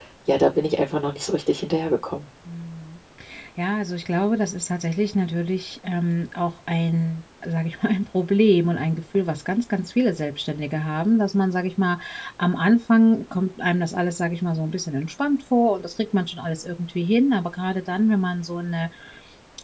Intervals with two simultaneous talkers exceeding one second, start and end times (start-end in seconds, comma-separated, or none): none